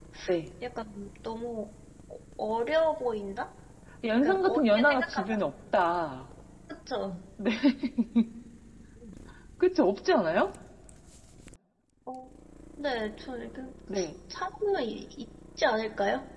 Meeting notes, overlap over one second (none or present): present